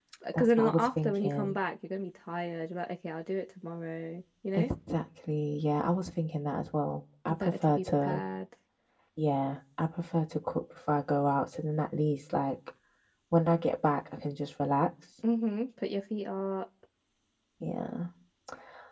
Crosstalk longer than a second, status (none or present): present